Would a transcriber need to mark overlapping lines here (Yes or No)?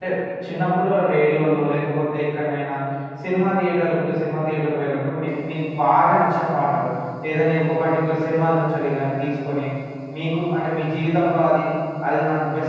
No